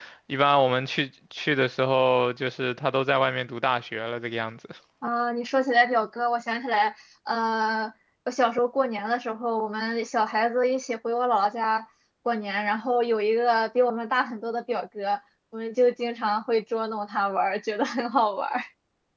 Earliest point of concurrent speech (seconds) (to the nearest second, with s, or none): none